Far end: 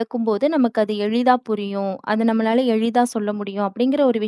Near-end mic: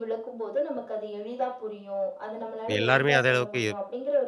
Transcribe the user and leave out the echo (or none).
இப்ப எல்லாருமே அதே அளவுக்கு